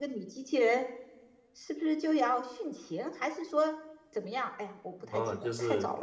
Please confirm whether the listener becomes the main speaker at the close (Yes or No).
Yes